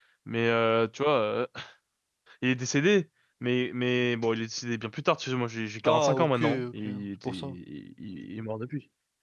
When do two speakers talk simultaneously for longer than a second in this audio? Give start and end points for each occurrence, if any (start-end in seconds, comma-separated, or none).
5.8-7.6